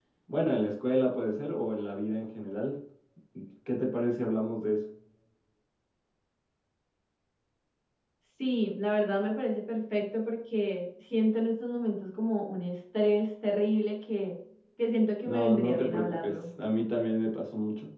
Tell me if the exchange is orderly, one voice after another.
No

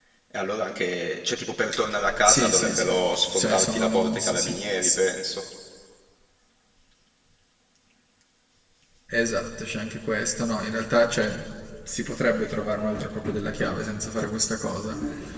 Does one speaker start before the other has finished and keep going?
Yes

